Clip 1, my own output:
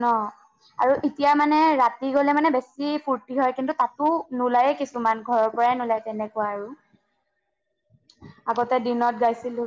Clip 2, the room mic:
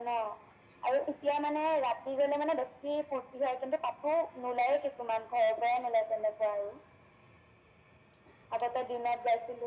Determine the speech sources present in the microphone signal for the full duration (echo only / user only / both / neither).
echo only